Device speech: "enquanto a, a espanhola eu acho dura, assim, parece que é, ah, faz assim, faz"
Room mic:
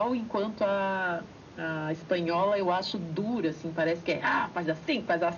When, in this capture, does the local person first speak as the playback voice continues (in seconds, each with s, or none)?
none